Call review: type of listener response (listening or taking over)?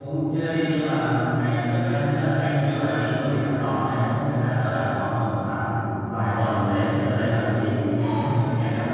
listening